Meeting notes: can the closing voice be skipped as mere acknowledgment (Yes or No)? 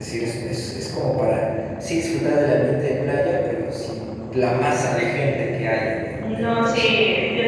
No